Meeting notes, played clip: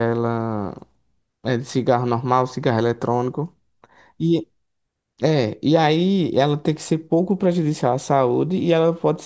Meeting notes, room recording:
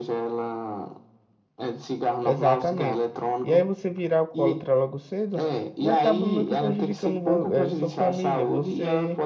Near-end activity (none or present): present